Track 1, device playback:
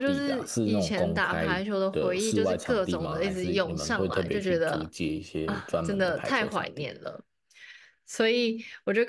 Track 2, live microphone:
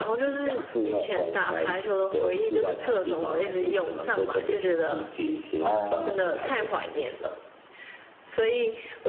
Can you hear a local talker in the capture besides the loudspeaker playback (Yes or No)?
Yes